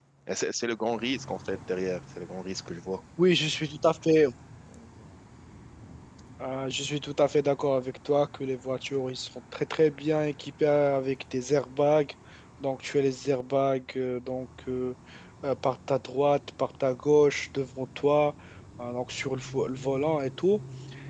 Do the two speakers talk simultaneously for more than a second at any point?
No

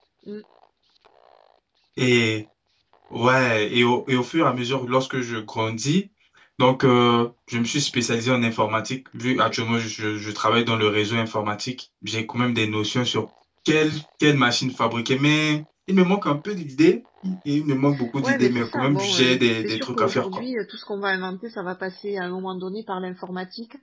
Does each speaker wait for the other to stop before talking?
No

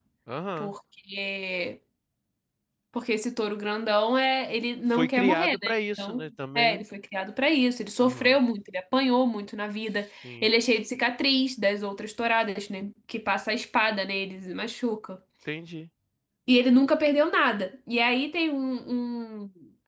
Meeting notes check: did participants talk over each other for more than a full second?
Yes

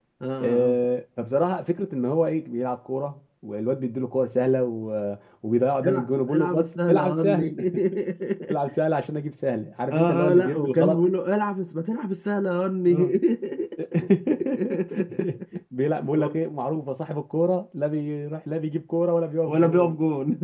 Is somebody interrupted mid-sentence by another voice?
Yes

